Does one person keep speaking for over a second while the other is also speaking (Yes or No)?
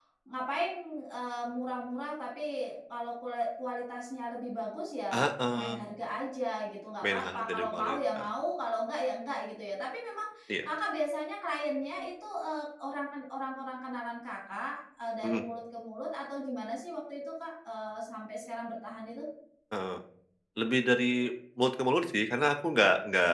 Yes